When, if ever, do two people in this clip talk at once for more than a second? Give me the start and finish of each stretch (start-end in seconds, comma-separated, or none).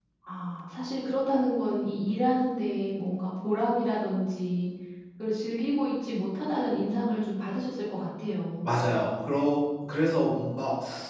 none